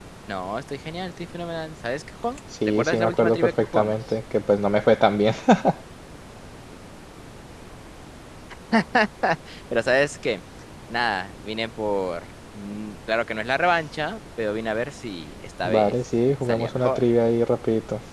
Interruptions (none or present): present